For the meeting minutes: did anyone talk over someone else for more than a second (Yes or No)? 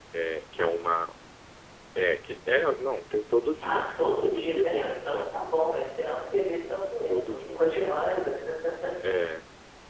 Yes